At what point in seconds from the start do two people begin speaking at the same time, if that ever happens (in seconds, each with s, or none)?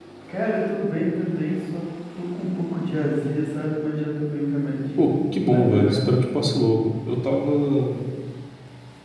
5.0 s